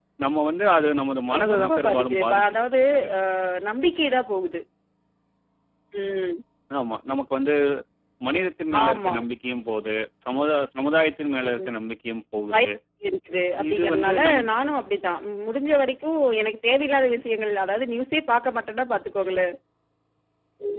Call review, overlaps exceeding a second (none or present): present